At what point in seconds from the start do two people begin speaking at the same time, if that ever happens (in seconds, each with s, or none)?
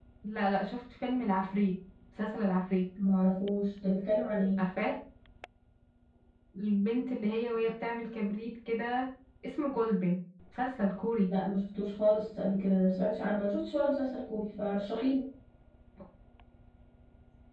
none